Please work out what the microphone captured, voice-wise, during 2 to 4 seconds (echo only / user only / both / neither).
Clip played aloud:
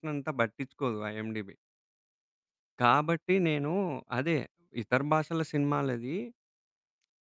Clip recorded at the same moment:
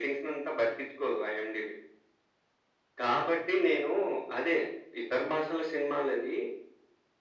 echo only